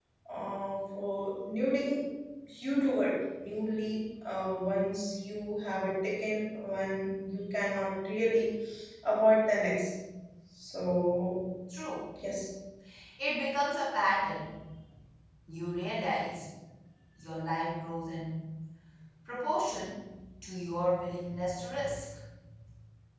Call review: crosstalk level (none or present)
none